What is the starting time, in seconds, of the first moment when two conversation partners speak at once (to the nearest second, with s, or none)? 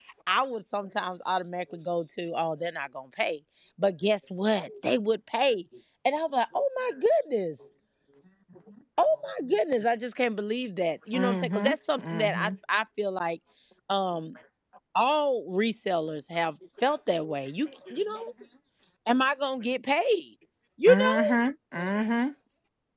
11 s